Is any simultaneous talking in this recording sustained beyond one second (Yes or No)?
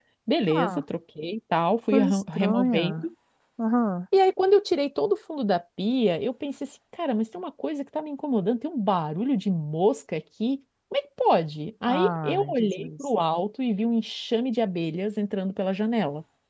Yes